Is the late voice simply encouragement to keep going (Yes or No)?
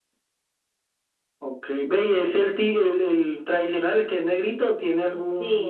No